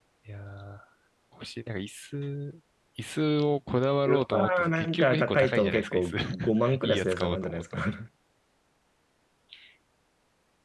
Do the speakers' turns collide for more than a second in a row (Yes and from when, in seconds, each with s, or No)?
Yes, from 4.1 s